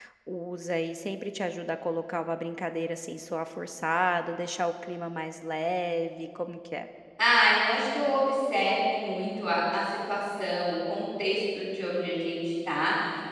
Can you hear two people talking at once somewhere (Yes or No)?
No